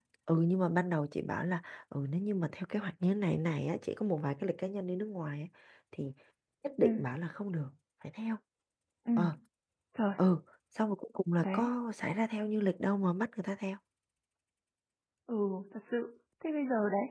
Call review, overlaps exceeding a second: none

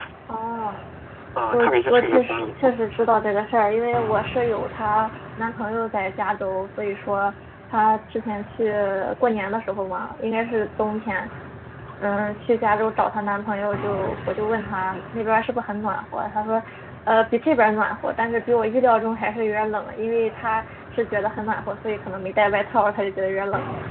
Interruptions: present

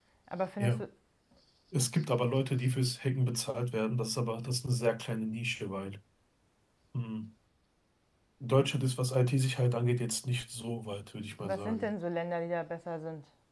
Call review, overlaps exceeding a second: none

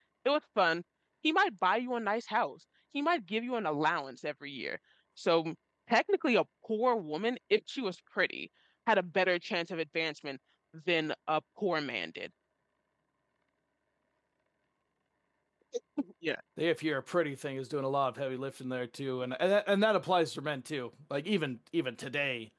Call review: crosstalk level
none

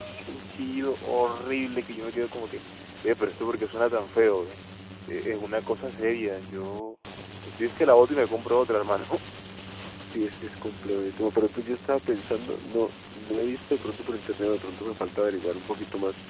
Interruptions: none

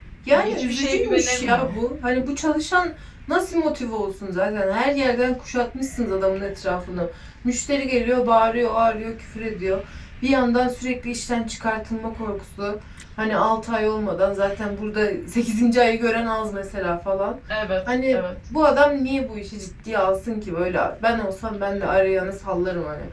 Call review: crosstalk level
present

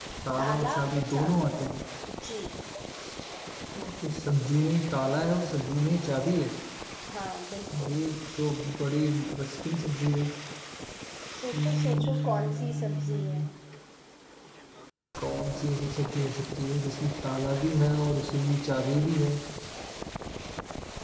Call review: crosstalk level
present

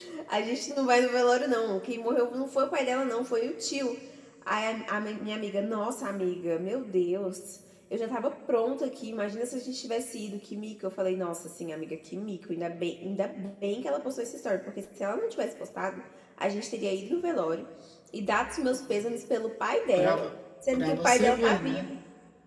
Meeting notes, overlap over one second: present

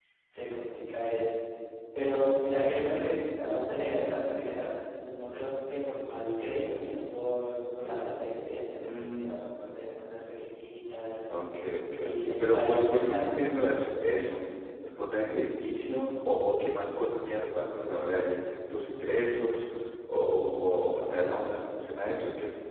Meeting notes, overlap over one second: present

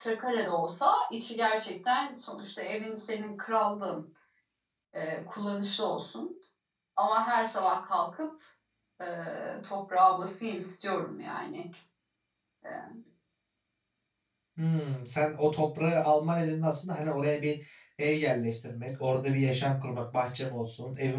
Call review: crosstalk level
none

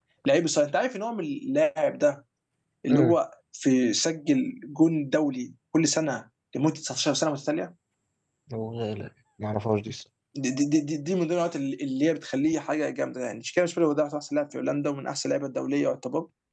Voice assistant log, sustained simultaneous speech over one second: none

